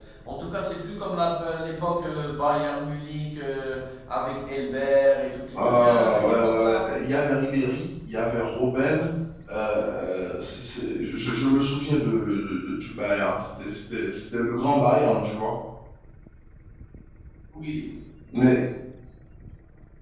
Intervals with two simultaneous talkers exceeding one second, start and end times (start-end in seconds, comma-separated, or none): 5.5-7.0